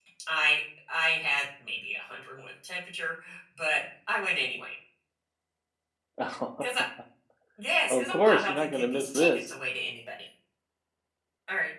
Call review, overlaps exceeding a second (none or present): present